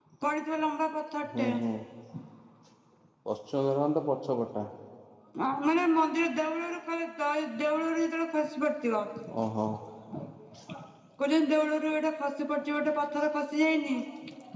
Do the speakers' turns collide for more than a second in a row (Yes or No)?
No